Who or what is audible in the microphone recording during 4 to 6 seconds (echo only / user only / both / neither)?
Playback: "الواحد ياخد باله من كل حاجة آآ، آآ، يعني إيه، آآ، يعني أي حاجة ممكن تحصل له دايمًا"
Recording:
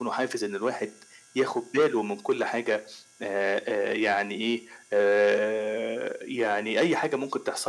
echo only